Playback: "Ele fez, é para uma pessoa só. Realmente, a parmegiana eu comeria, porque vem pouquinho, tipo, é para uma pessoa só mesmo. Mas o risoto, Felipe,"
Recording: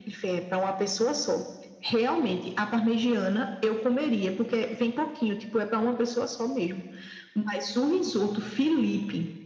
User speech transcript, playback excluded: none

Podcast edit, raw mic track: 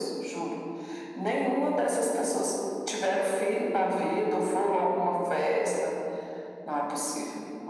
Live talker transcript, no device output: none

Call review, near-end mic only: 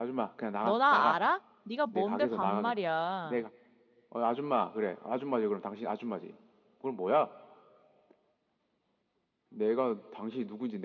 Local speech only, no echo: 너 나 알아? 네가 뭔데 반말이야.

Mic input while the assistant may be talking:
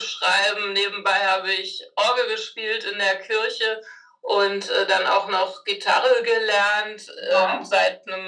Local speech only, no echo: Ja.

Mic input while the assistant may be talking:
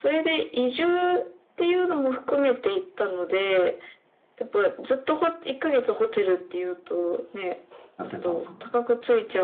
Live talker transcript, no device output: やってたんですか

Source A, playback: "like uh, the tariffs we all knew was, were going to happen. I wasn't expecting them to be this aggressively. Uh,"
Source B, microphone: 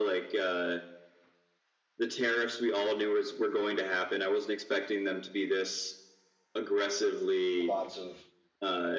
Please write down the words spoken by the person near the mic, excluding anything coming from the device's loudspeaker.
lots of

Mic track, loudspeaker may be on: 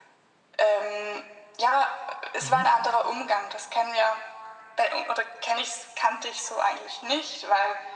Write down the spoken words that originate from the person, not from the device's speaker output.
Mhm.

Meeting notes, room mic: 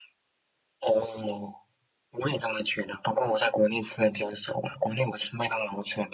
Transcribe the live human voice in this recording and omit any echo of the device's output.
none

